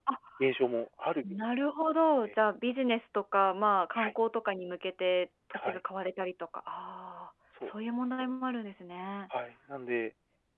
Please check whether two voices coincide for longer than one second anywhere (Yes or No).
No